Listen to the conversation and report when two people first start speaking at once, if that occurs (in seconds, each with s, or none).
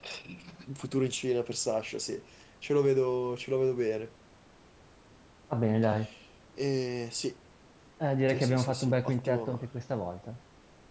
8.3 s